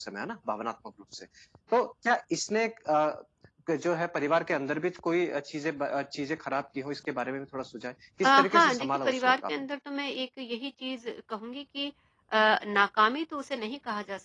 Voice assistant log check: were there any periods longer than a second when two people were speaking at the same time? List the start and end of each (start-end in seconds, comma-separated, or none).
8.2-9.5